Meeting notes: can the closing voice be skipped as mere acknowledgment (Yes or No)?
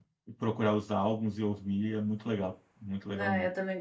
No